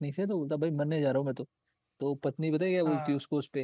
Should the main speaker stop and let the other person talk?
No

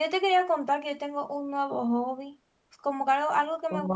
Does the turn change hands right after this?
No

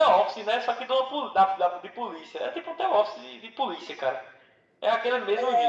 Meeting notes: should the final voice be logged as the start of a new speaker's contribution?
Yes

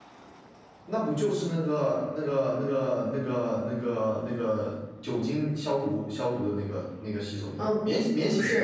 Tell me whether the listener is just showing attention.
No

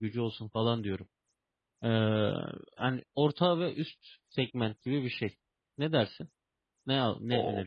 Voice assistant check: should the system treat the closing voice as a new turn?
Yes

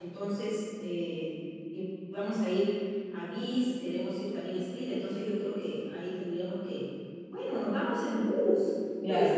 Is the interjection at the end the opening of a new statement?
No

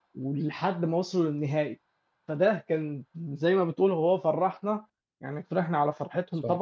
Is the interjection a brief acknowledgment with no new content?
Yes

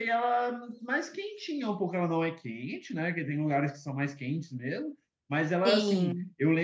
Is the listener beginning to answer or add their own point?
No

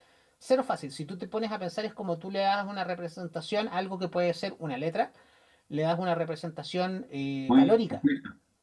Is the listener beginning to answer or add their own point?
Yes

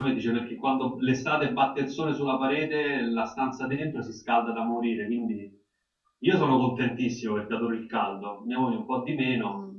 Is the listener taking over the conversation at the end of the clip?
Yes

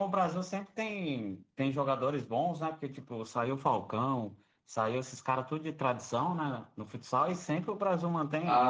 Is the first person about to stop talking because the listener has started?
Yes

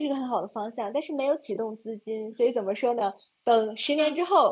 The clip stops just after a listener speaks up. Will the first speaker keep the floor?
Yes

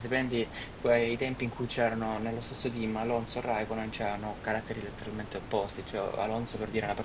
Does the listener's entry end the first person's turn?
No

